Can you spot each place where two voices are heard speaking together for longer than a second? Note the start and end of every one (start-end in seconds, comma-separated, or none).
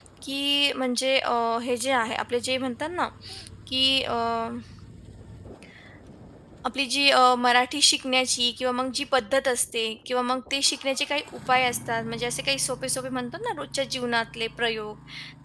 none